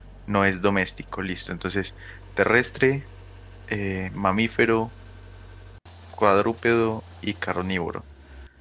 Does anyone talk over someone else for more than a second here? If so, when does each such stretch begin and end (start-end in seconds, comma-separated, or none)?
none